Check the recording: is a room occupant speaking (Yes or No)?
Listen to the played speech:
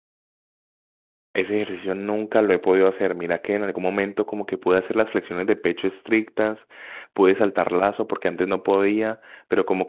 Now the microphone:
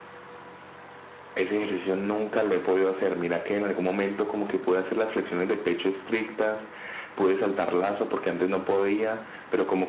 No